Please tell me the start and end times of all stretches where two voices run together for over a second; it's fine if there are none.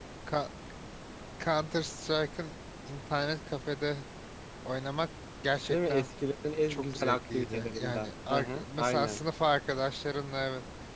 6.7-9.2

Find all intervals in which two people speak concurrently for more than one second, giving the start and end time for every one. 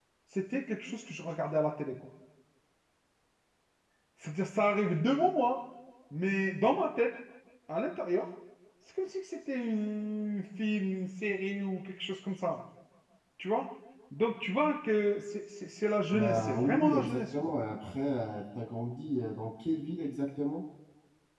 16.1-17.5

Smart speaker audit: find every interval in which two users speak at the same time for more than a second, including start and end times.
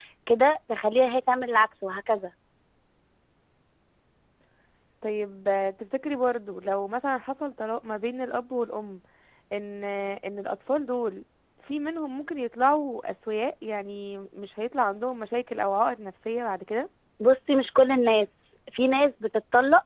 none

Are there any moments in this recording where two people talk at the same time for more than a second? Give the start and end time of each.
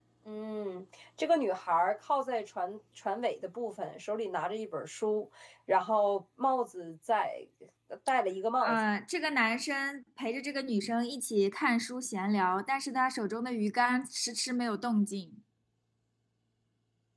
none

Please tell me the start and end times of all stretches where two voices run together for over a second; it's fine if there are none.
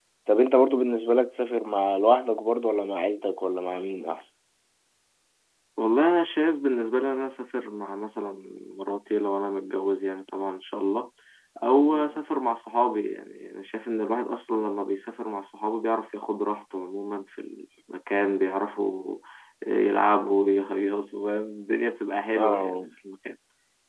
none

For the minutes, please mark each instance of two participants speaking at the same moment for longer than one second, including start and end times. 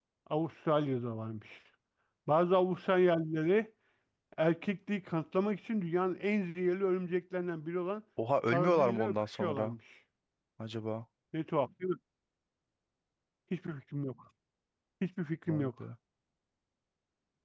8.5-9.7

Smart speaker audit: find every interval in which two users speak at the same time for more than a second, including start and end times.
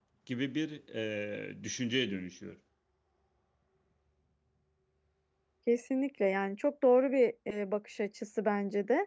none

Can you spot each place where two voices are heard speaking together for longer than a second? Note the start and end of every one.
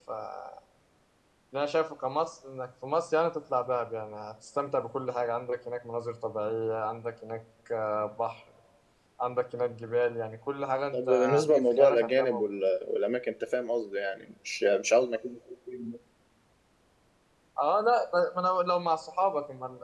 10.9-12.6

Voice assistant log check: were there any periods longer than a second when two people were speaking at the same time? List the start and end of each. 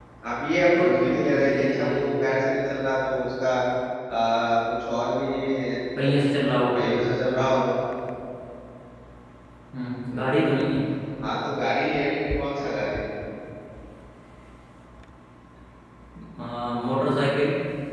0.8-2.1

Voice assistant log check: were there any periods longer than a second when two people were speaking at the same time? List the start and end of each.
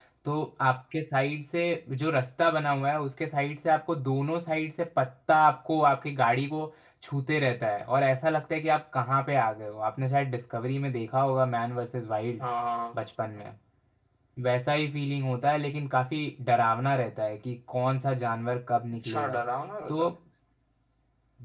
none

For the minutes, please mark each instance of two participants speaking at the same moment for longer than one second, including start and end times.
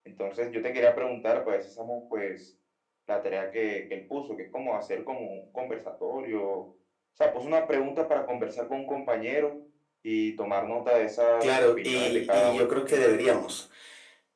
11.4-13.1

